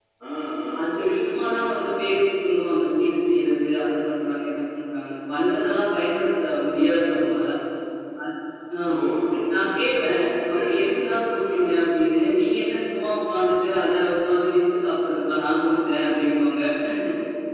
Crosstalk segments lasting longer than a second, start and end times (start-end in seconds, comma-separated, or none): 0.8-2.1